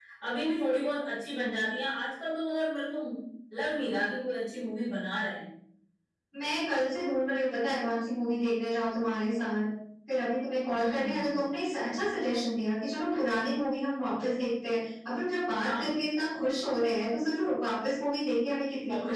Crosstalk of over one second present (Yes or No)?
No